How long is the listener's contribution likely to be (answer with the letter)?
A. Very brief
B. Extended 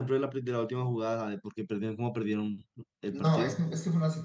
B